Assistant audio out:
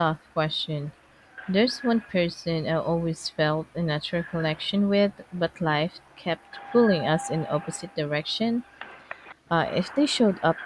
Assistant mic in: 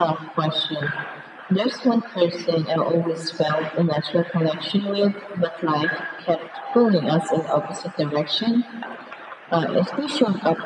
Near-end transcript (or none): none